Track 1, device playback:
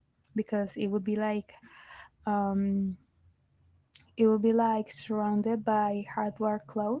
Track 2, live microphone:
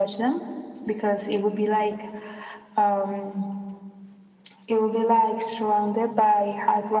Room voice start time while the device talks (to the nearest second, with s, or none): none